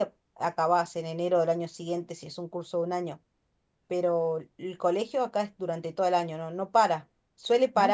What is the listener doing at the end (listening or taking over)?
listening